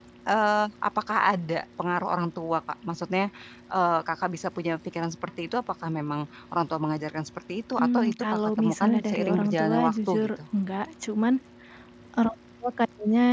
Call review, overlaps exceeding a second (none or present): present